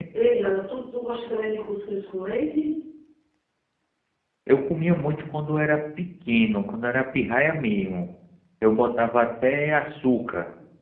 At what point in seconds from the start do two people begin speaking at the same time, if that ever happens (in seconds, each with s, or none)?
none